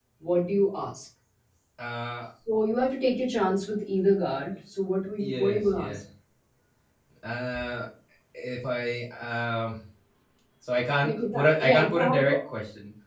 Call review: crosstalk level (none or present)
present